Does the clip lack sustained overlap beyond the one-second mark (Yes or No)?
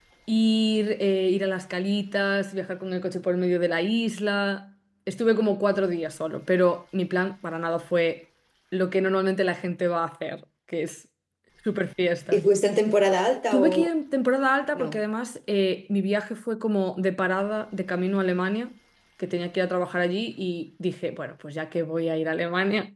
Yes